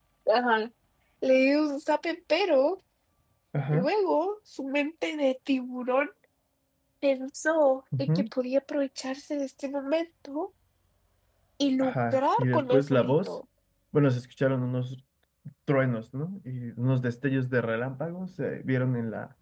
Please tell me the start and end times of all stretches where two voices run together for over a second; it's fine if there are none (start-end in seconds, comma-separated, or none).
11.8-13.3